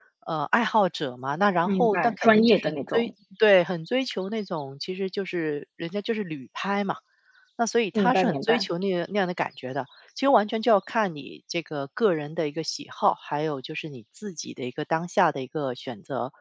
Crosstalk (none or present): present